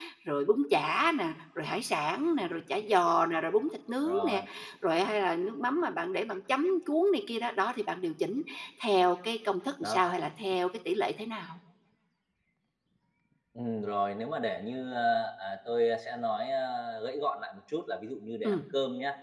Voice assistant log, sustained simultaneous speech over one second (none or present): none